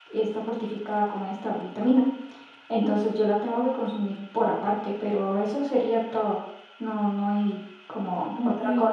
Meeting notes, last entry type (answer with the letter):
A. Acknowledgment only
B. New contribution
B